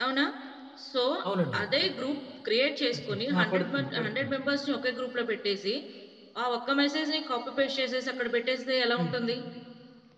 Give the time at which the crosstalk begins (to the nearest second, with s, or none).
3 s